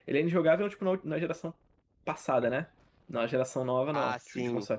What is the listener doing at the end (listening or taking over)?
listening